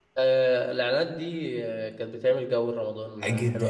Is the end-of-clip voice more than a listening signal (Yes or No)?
Yes